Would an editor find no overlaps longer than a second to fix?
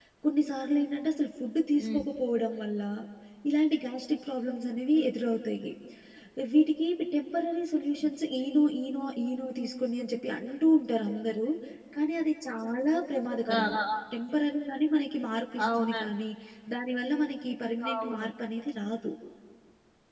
Yes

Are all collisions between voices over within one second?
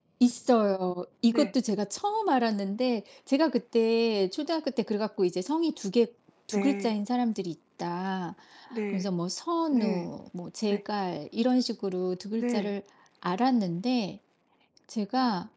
Yes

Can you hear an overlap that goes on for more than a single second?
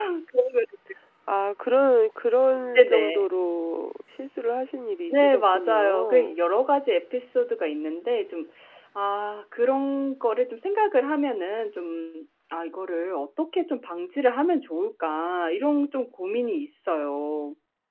Yes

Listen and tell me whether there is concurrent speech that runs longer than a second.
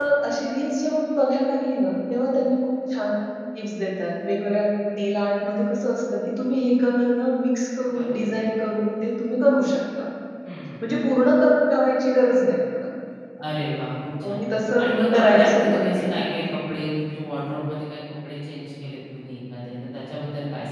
Yes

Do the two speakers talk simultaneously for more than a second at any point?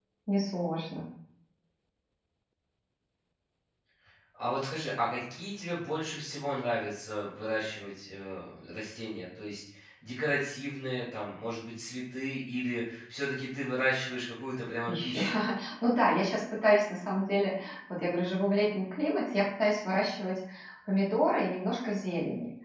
No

